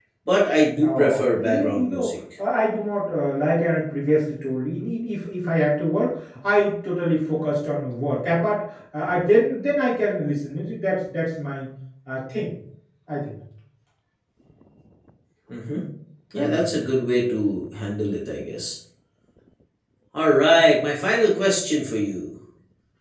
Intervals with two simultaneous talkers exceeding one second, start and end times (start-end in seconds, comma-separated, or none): 0.8-2.1